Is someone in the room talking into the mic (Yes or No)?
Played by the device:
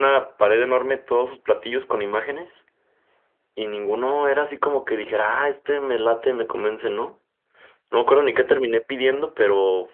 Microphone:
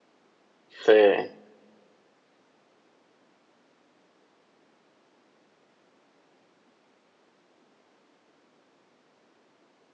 Yes